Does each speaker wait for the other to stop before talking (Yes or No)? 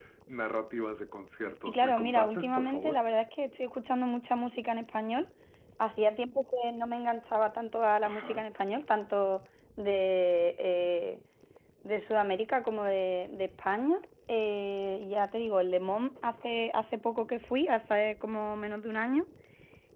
No